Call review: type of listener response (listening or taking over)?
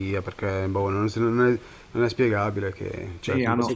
taking over